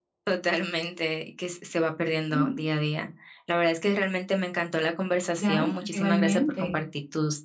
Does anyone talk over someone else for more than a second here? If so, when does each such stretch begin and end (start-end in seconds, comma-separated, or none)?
5.4-6.8